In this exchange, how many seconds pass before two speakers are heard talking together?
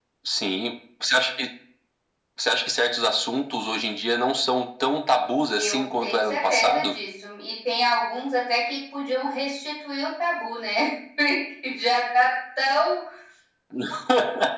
5.6 s

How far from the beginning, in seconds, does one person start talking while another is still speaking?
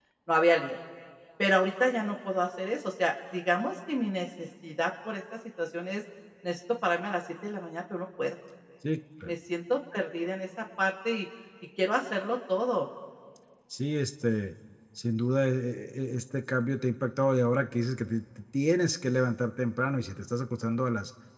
none

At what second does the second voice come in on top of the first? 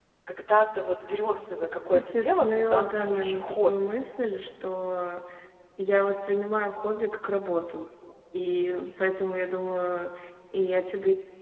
1.9 s

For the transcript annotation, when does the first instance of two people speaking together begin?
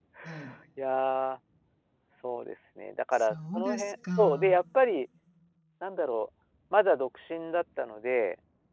3.1 s

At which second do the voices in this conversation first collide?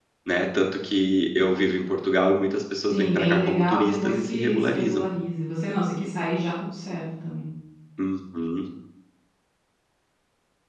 2.9 s

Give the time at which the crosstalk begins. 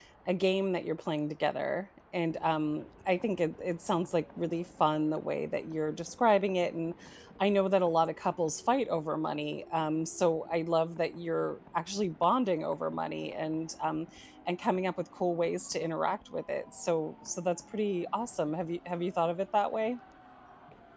none

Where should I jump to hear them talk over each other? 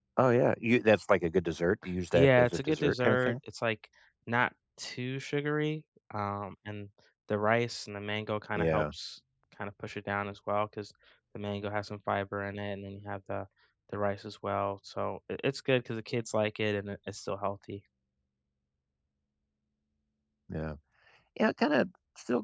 2.1 s

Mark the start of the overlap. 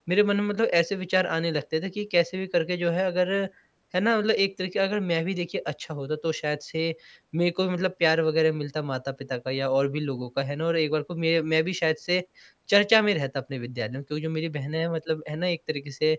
none

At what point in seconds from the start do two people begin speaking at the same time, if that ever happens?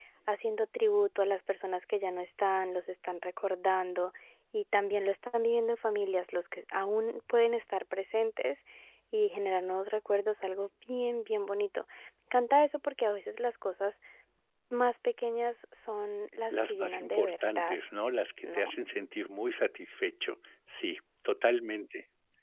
16.5 s

